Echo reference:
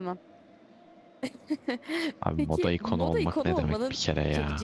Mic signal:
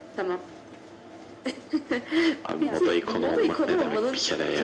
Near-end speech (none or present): present